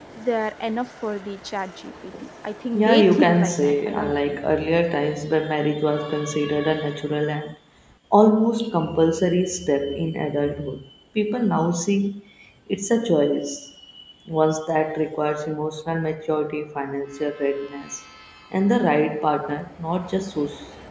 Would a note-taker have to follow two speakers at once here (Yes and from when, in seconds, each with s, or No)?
Yes, from 2.7 s